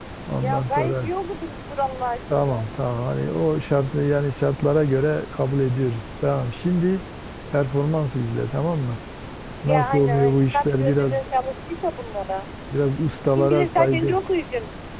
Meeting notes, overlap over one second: present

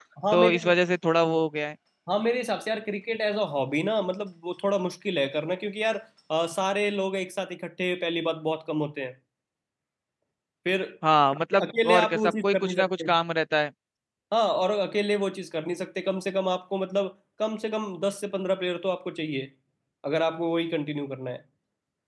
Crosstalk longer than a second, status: present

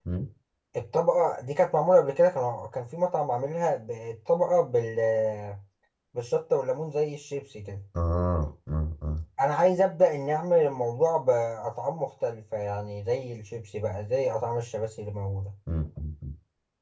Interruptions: none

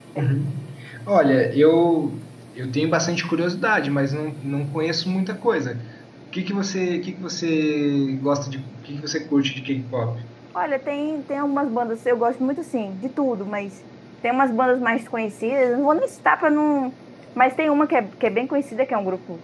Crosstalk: none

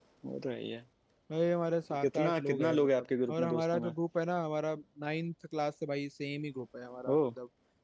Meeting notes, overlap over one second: present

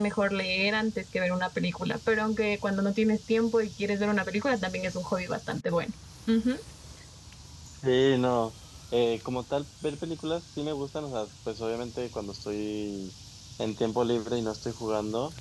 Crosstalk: none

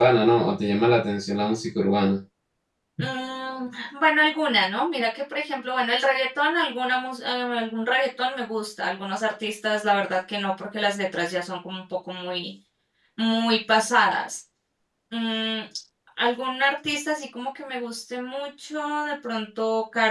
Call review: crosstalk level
none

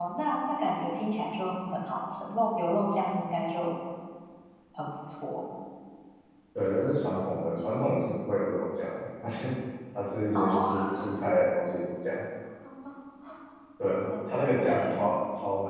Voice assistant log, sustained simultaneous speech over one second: present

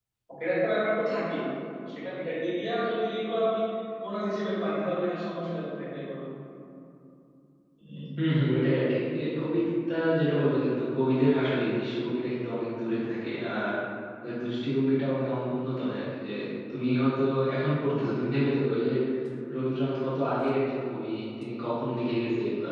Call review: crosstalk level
none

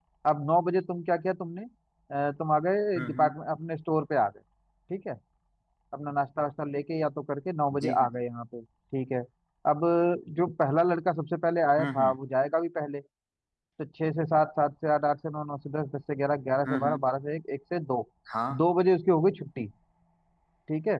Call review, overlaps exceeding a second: none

